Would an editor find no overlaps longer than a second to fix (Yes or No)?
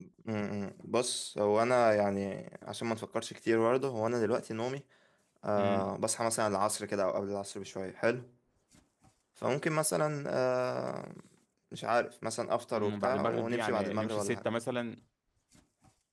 No